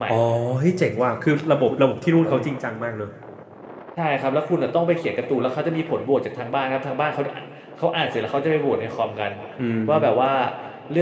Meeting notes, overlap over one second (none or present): none